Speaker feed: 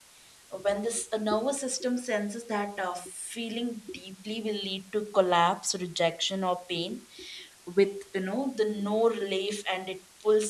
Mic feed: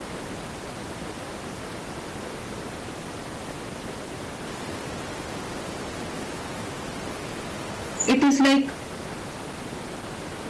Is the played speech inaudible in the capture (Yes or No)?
Yes